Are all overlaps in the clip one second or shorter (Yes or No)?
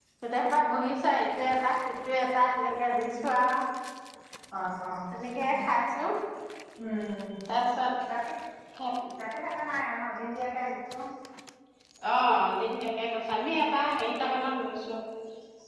Yes